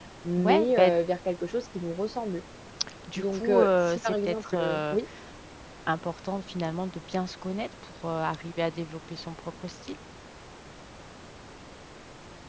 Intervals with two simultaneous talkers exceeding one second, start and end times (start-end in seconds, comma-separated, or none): 3.2-5.0